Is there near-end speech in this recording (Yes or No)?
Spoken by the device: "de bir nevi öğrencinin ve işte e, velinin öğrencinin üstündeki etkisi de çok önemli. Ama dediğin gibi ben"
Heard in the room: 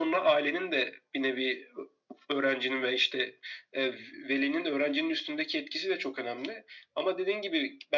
No